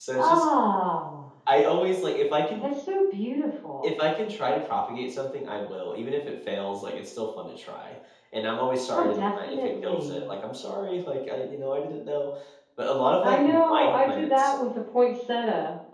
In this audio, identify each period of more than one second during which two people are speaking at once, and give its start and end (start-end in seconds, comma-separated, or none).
8.9-10.3, 13.2-14.5